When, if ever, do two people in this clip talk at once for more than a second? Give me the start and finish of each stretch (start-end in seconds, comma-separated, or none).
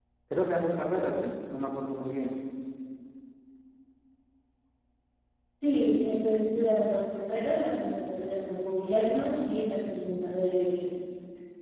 none